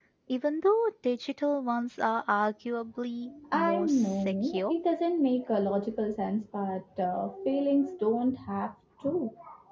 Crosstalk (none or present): present